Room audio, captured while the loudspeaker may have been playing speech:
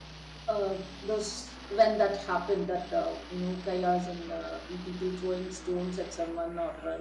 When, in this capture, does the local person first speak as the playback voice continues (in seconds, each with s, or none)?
none